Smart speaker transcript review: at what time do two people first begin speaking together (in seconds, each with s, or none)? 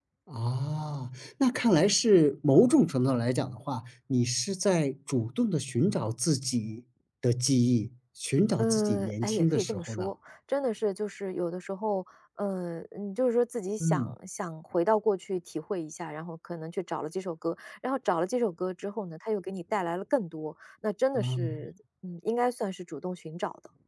8.6 s